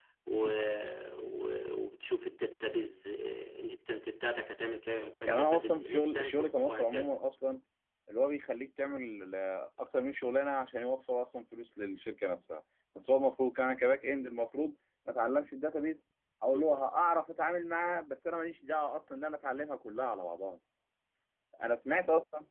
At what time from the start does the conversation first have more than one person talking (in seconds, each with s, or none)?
5.3 s